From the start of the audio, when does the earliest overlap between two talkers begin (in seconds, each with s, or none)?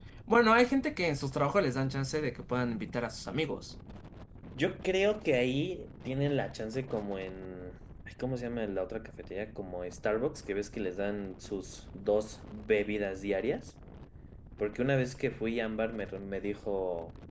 none